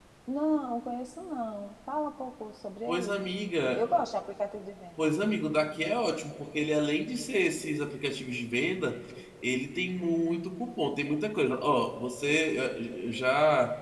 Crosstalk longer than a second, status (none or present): none